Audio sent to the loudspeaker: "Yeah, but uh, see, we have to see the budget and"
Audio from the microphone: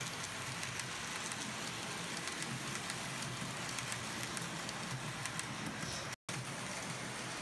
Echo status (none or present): none